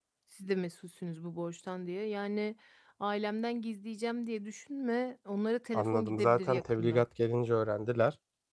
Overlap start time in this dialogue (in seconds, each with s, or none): 5.7 s